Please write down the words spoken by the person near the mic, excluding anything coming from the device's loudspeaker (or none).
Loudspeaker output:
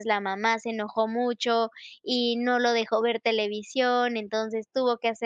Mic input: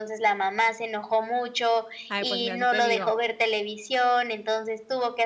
Ay, pues mira, si te digo,